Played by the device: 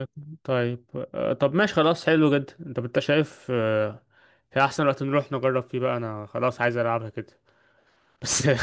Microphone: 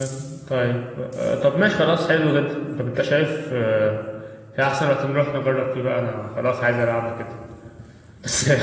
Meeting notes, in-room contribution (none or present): none